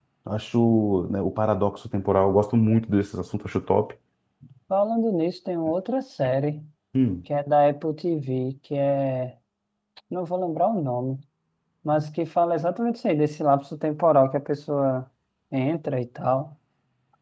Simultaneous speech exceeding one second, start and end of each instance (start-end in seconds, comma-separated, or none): none